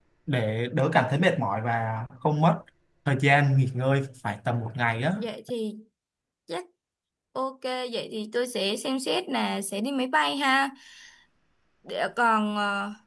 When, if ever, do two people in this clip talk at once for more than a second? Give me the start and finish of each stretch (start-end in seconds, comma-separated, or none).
none